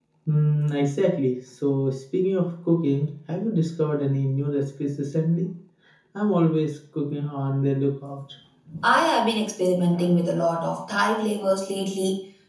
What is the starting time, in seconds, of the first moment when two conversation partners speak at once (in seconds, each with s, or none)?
none